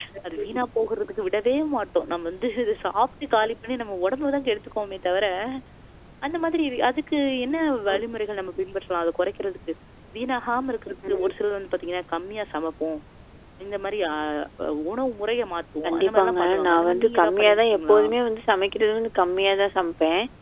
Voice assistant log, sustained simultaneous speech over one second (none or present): present